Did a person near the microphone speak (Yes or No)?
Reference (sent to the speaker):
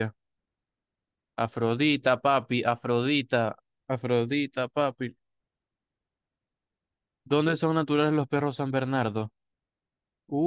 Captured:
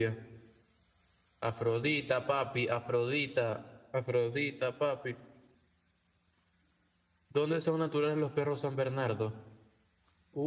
No